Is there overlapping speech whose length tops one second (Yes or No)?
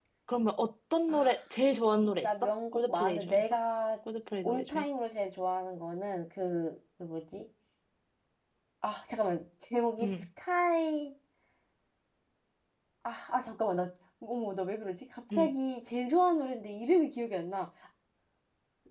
Yes